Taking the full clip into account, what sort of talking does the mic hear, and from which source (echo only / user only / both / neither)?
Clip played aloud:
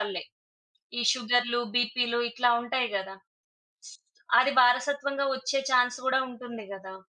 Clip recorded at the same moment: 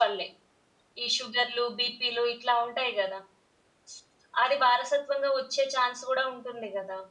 echo only